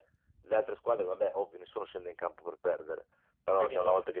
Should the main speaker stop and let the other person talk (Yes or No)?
No